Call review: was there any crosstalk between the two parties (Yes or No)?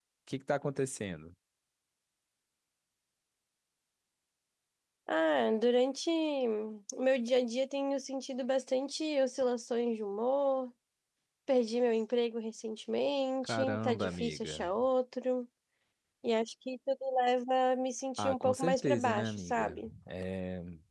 Yes